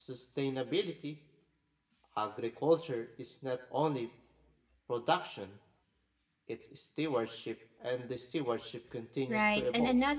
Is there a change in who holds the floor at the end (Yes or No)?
Yes